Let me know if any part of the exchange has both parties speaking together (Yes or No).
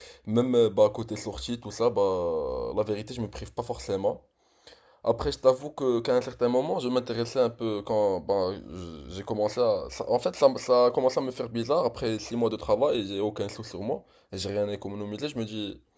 No